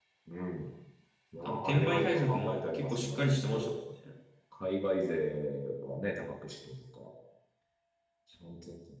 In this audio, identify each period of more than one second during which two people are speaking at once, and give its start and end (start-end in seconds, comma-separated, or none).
1.4-3.7